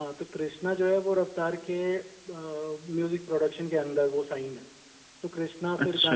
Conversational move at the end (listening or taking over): listening